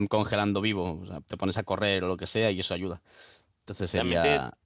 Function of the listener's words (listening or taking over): taking over